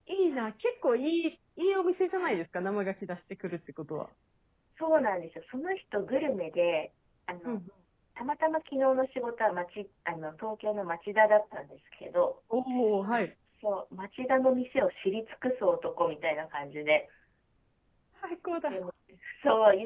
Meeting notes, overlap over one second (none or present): none